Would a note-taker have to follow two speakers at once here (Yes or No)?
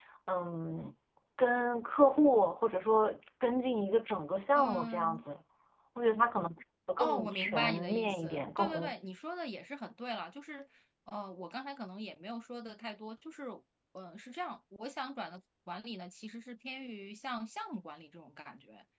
Yes